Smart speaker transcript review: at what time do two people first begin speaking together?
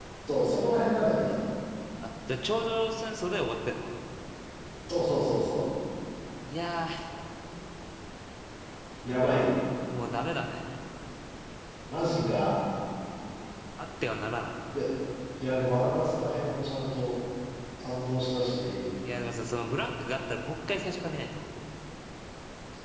none

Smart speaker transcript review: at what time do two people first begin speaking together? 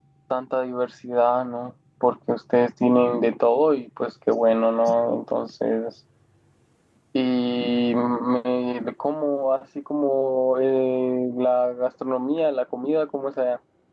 none

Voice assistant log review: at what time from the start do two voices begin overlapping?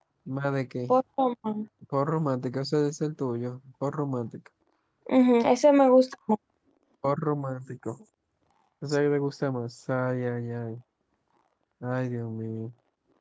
none

